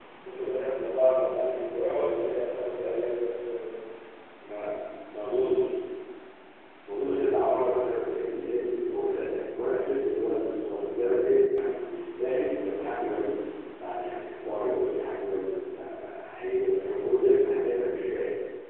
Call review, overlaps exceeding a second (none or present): none